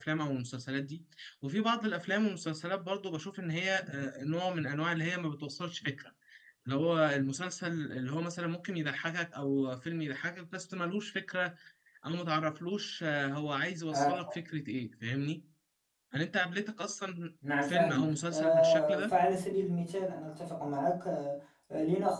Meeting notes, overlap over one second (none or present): present